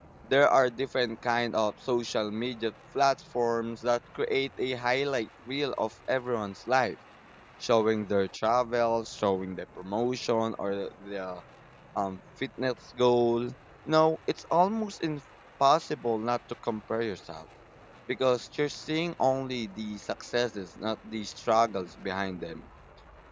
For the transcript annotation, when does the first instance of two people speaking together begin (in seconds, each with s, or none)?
none